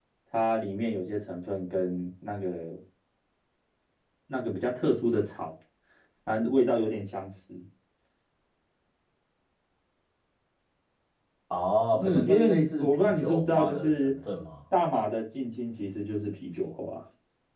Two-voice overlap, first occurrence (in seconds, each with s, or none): 12.0 s